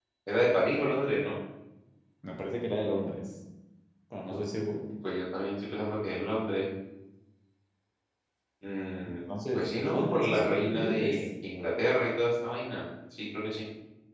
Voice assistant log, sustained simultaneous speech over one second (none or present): present